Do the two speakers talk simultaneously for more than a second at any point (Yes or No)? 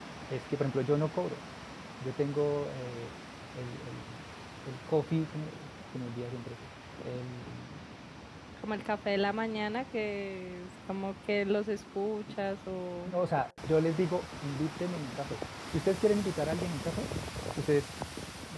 No